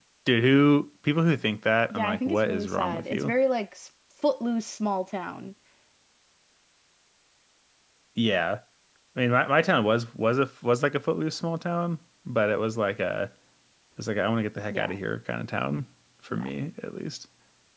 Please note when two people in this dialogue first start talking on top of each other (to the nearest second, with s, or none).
2 s